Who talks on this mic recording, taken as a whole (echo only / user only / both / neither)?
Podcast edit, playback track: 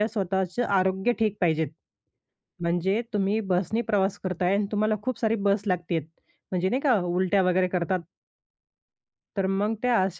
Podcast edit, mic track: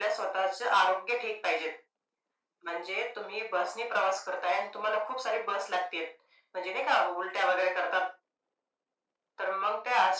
echo only